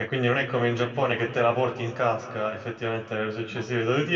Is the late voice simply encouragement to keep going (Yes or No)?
Yes